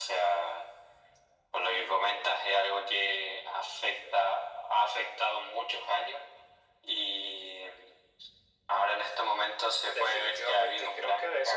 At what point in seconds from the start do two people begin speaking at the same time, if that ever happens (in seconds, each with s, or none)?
9.8 s